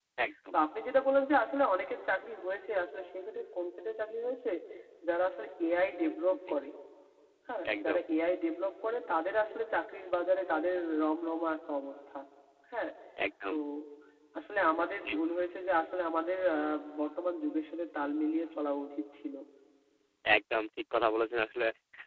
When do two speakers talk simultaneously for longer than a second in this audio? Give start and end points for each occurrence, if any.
none

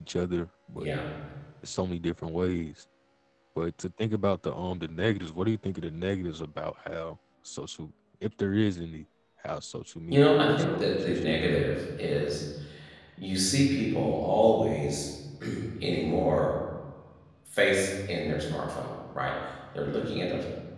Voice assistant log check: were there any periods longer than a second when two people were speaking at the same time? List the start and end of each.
10.1-11.4

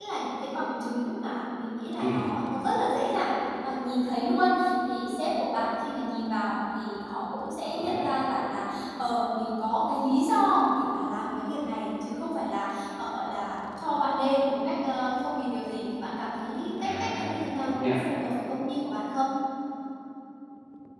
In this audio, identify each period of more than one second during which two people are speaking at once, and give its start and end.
16.8-18.0

